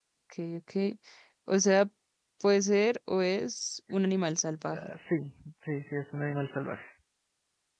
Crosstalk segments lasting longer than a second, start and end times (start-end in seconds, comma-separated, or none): none